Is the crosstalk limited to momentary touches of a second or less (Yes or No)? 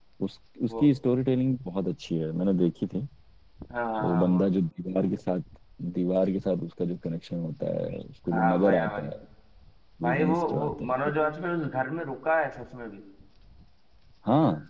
No